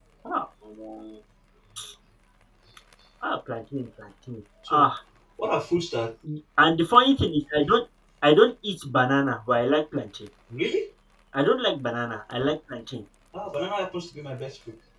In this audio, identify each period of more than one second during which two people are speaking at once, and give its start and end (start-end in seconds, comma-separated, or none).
none